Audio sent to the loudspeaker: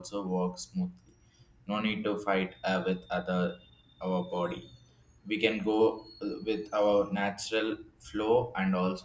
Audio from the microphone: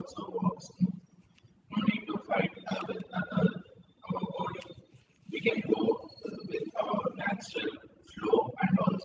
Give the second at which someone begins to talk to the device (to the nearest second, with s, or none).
none